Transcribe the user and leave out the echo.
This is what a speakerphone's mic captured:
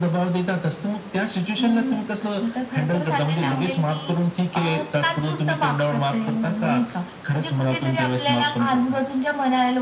none

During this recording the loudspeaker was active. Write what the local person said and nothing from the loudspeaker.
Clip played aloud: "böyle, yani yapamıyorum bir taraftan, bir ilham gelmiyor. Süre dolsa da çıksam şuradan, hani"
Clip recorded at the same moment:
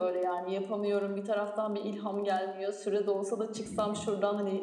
Hıı.

